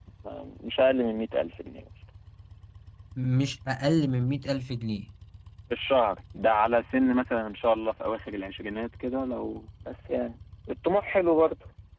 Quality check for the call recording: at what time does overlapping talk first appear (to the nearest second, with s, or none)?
none